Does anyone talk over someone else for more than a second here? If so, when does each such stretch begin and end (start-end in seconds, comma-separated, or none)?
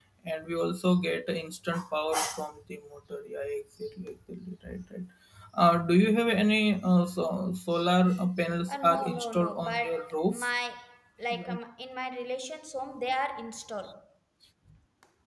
8.7-10.5